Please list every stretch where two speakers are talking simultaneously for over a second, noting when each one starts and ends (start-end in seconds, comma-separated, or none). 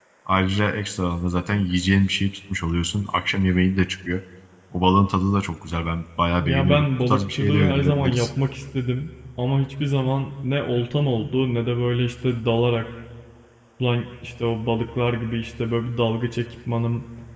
6.4-8.3